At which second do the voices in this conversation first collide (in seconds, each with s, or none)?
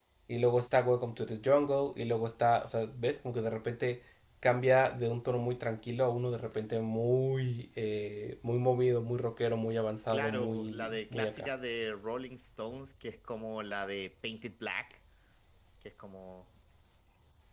10.1 s